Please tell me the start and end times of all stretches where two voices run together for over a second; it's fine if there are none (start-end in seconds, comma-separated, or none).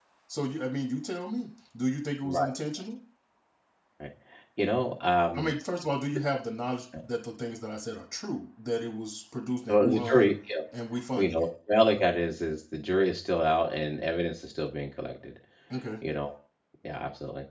none